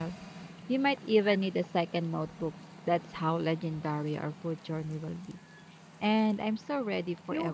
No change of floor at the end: No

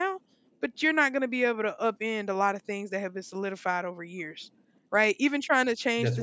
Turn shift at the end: No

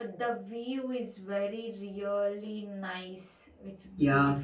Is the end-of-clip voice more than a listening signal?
Yes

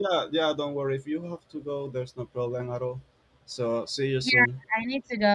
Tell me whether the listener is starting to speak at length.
Yes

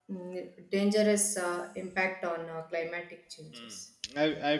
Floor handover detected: Yes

